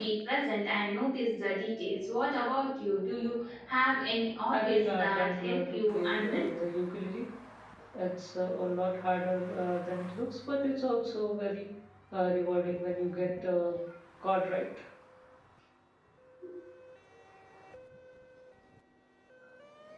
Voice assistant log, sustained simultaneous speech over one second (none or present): present